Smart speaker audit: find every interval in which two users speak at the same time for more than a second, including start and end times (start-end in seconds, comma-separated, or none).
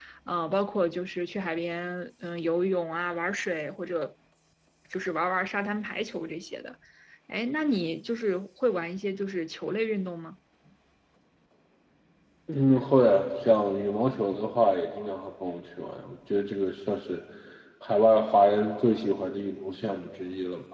none